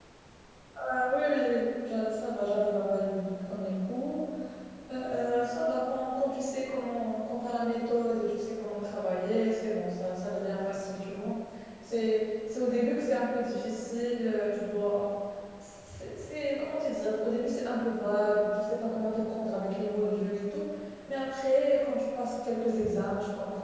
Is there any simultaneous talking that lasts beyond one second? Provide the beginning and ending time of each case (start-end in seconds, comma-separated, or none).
none